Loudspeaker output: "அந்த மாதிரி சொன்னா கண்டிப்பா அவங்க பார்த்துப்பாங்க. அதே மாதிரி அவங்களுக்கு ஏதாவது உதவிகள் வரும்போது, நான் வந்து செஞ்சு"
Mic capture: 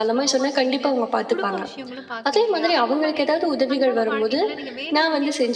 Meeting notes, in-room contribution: present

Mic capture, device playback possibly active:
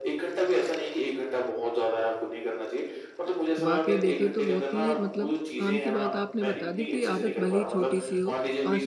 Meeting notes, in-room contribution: present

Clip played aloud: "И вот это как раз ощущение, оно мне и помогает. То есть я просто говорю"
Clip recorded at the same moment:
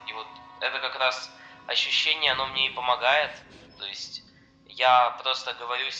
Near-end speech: none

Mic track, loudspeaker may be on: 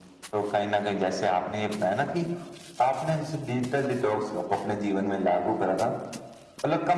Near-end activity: none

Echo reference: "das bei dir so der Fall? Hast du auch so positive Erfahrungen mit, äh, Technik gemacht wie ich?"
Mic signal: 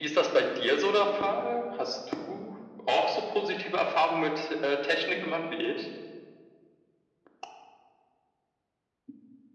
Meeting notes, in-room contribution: none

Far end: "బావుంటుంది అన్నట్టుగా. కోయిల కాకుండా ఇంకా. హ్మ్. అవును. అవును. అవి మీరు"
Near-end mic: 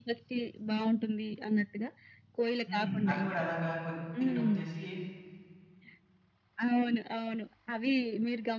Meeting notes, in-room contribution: present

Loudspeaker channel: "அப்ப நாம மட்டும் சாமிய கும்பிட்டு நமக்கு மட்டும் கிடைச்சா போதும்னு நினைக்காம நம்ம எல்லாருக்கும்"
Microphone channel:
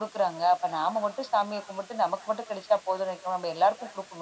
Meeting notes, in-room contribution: none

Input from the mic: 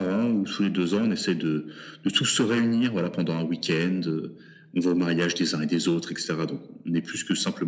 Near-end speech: none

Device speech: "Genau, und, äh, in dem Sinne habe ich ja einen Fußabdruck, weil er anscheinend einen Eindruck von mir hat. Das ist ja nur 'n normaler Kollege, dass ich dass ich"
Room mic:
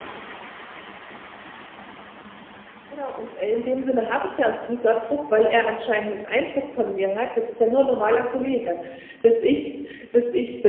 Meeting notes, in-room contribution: none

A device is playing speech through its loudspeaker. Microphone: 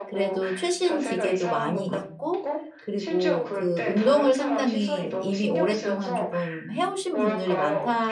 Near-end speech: present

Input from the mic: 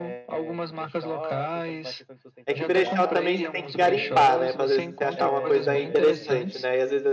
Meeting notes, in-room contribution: present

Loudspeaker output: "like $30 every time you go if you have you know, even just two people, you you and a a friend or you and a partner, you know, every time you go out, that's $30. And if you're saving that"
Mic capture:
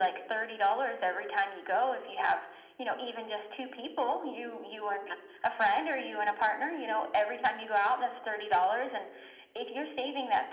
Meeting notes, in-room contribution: none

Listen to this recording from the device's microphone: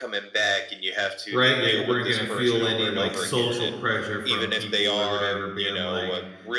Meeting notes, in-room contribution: present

